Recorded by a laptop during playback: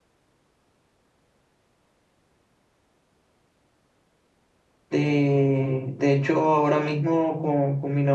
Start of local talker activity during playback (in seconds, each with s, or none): 4.9 s